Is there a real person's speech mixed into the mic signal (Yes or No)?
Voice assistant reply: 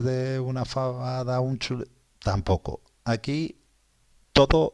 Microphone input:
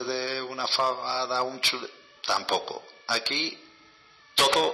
No